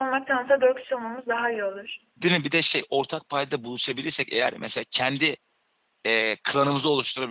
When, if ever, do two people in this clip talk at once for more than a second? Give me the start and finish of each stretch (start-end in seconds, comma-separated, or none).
none